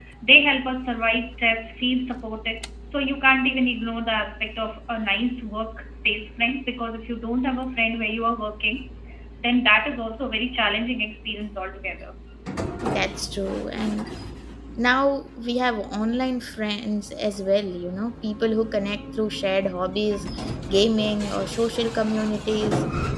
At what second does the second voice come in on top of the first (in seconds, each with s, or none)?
none